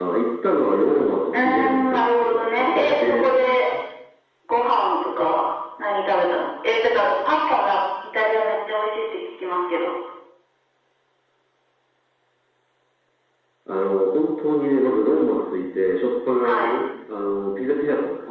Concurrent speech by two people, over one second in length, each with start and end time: 1.3-3.7

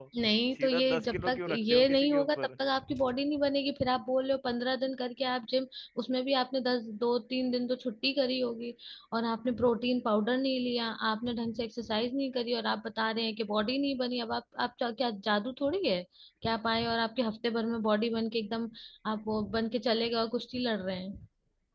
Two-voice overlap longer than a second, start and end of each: 0.6-2.5

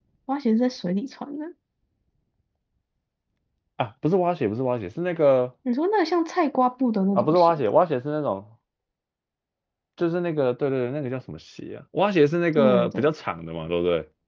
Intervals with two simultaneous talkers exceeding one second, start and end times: none

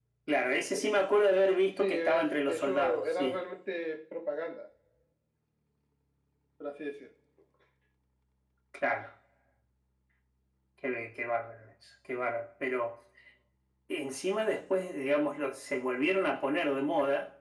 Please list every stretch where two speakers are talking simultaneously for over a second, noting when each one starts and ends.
1.8-3.4

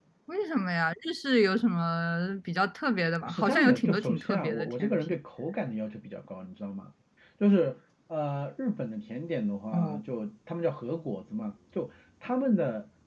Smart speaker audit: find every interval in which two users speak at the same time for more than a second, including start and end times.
3.2-5.0

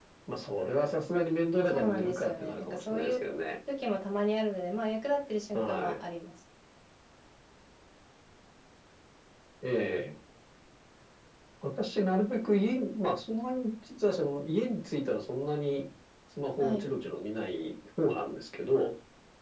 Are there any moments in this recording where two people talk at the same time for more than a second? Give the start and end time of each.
1.7-3.1

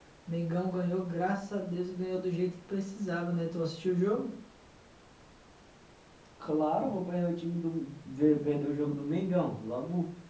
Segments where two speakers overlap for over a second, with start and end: none

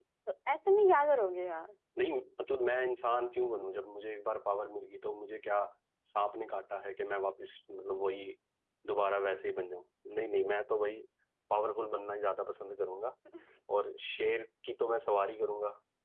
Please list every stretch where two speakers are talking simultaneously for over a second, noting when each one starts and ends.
none

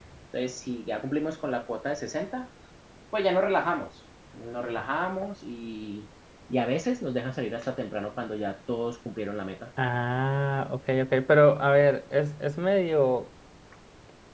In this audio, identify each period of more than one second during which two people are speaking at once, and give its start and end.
none

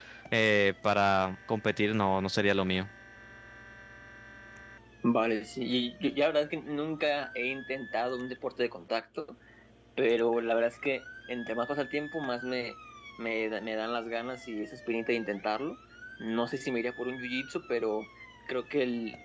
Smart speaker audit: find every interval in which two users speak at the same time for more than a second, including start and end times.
none

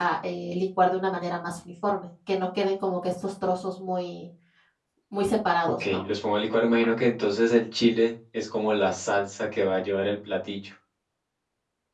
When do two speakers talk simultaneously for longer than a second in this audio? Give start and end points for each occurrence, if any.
none

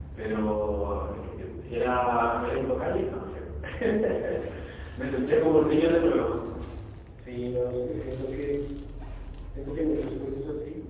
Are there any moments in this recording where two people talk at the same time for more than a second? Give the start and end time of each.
none

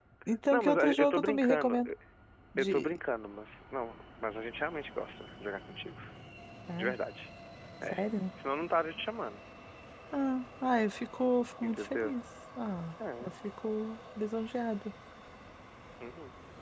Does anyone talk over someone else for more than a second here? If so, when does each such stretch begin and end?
0.5-1.9

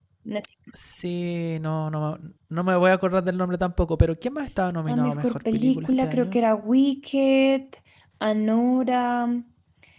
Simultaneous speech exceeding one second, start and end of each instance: 4.9-6.4

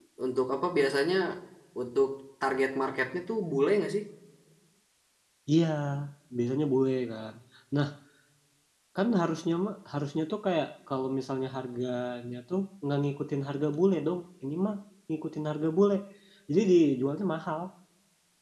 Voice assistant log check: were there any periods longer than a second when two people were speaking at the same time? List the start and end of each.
none

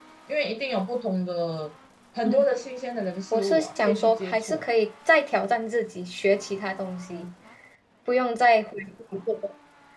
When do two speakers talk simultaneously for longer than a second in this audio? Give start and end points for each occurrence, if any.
3.3-4.7

